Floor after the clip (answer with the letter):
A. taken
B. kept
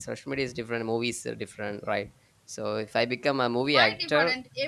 A